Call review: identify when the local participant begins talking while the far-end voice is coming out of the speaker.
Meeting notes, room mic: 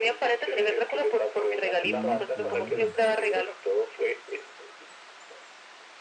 1.8 s

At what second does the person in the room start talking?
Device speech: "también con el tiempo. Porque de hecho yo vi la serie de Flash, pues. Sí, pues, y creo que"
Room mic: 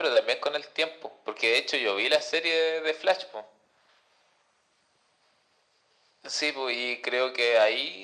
none

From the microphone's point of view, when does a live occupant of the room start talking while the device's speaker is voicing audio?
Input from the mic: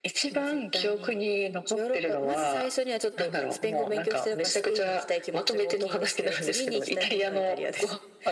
none

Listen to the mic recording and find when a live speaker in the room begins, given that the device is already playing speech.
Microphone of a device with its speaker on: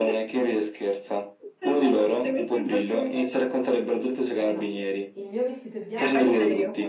4.4 s

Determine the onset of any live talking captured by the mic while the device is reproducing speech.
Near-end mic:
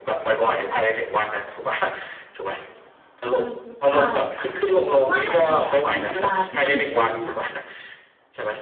3.2 s

